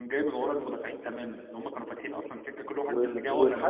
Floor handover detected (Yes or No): Yes